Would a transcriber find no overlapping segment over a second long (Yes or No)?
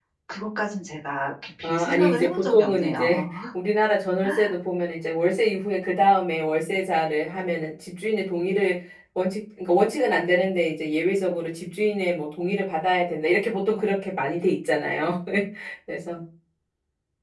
No